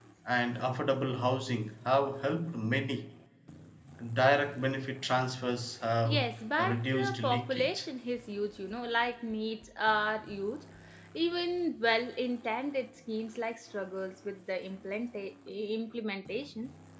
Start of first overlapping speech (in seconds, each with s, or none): 6.0 s